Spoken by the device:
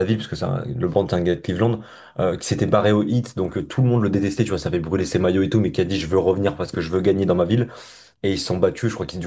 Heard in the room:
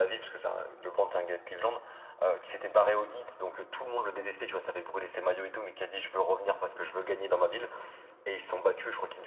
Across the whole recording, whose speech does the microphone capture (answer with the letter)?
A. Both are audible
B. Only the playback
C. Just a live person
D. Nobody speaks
B